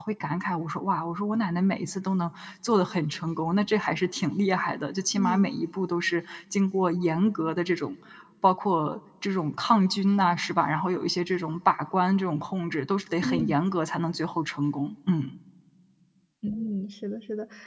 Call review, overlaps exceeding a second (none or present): none